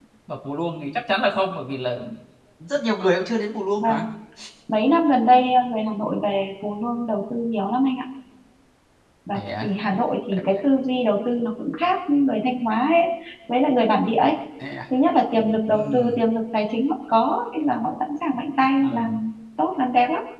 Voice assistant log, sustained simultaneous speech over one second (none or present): none